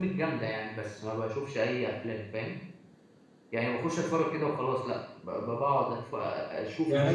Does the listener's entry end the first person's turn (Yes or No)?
Yes